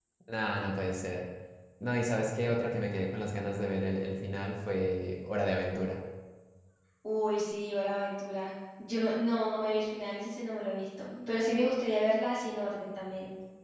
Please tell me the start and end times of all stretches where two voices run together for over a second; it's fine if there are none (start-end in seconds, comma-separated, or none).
none